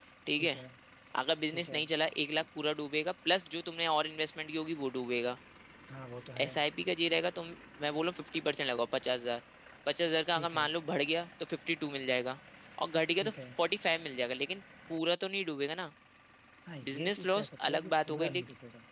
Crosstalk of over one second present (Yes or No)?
Yes